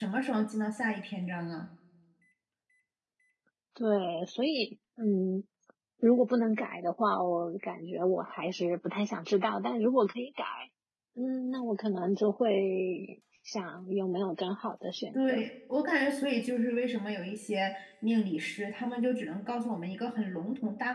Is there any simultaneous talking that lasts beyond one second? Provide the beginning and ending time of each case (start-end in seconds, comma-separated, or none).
none